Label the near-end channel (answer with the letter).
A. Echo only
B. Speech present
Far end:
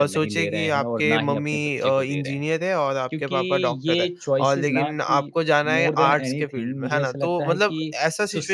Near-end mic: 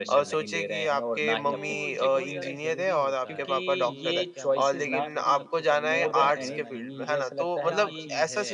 B